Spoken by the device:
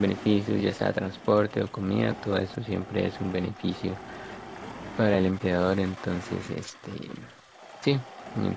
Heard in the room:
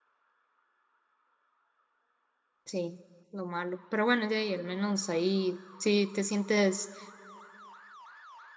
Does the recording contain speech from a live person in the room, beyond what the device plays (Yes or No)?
Yes